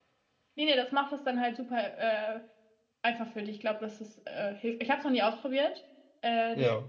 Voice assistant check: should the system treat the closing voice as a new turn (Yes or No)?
No